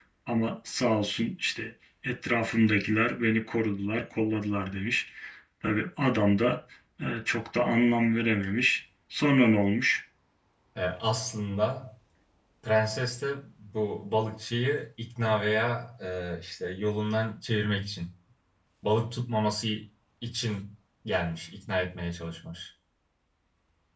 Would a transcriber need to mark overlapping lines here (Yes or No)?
No